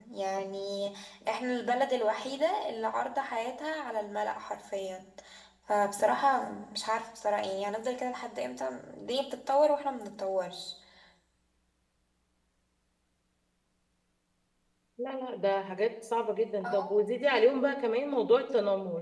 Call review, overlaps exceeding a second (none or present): none